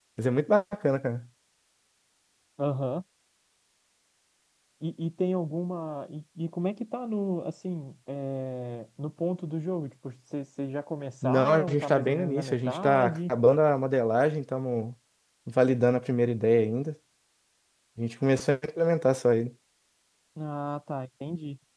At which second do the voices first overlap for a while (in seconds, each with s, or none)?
11.2 s